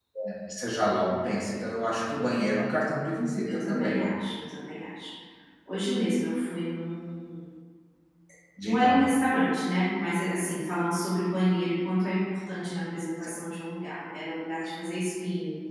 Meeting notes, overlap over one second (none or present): none